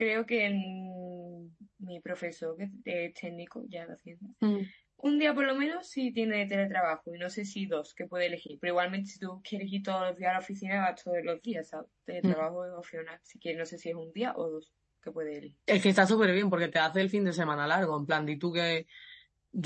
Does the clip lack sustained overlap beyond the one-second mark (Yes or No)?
Yes